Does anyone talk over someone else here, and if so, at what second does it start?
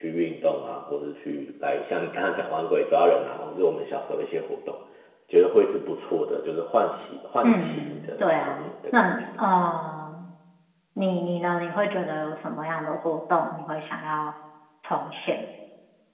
7 s

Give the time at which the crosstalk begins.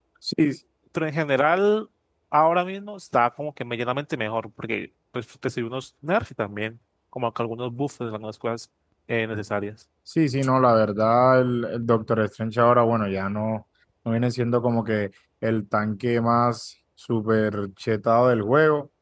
none

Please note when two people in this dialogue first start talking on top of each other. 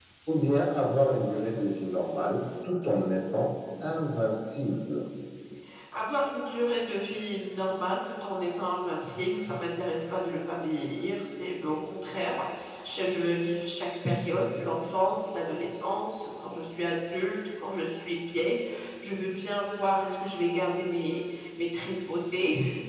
none

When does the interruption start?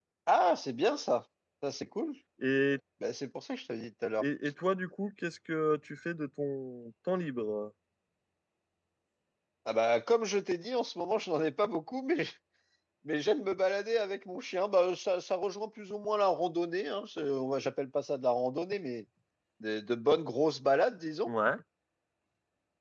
none

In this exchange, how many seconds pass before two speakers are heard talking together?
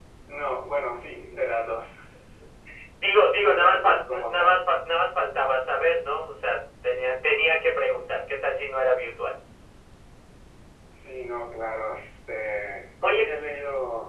3 s

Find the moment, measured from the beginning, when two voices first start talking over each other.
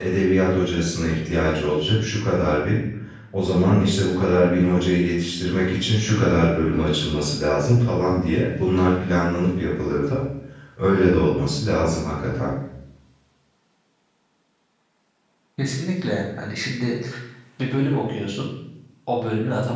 none

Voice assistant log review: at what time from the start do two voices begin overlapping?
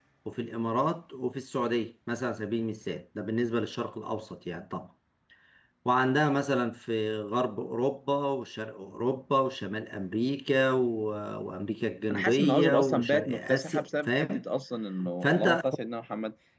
12 s

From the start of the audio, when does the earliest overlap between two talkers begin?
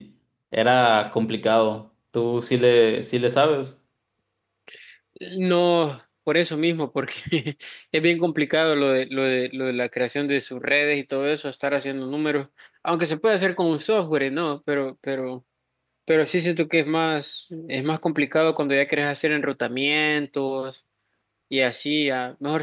none

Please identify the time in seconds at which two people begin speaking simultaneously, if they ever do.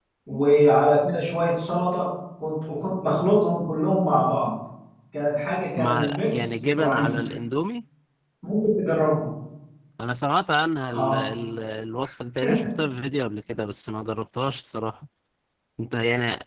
6 s

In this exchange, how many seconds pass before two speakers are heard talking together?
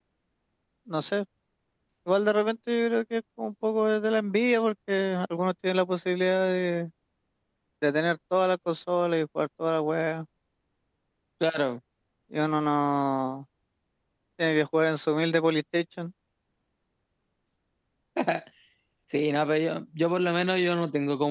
none

